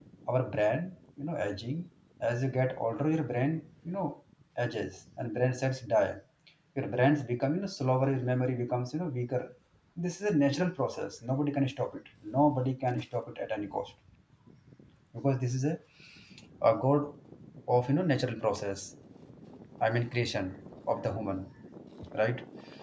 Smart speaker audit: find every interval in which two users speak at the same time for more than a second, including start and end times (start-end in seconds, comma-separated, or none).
none